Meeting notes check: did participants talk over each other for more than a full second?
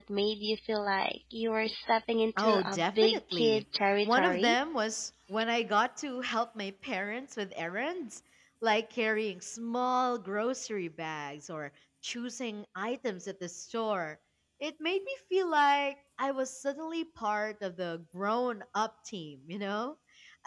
Yes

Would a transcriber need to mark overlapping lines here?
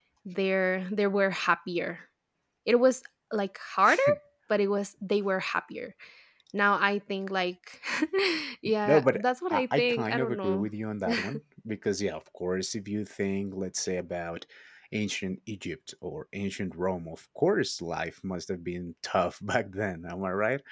Yes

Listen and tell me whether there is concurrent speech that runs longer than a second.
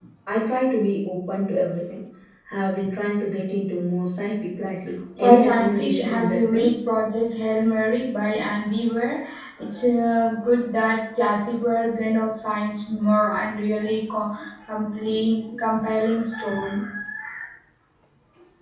Yes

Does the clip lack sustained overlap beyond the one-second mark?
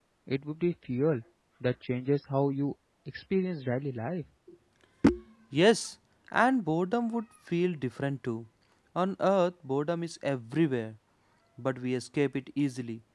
Yes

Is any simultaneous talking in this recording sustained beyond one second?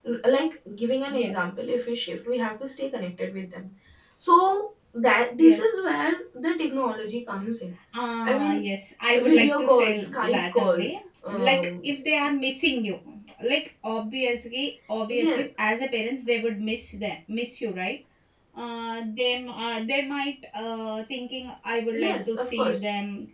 Yes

